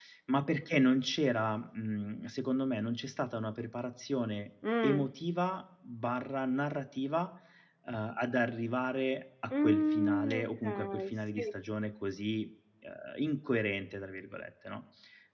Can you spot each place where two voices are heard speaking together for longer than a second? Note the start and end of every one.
9.5-11.5

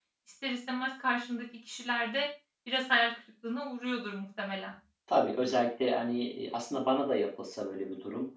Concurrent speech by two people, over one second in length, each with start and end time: none

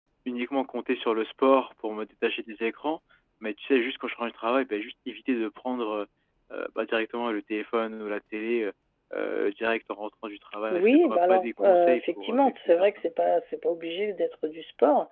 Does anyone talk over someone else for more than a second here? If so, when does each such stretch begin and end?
10.7-13.0

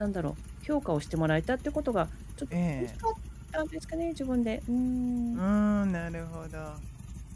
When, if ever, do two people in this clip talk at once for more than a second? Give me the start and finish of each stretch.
none

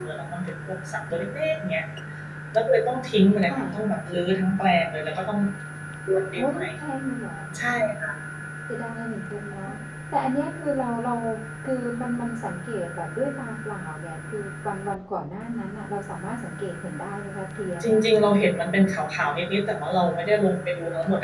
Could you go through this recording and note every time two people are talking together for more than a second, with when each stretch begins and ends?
none

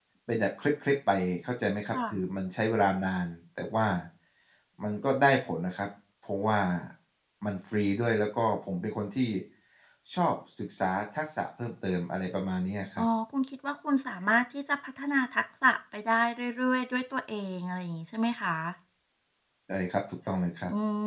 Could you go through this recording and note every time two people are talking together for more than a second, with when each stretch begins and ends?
none

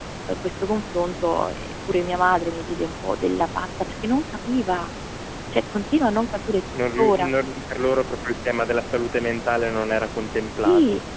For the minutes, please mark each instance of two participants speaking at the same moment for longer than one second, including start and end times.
none

